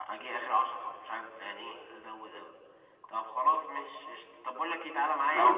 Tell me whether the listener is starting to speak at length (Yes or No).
No